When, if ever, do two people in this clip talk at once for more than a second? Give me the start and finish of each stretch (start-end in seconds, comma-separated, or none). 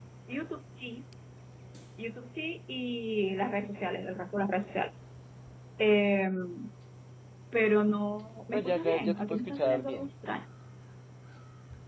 8.5-10.1